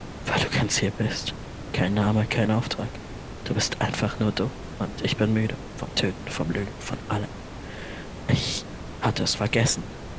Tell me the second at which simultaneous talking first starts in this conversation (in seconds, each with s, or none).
none